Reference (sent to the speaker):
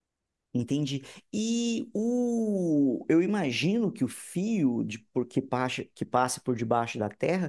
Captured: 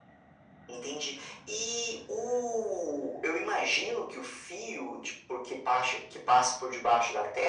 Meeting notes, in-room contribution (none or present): none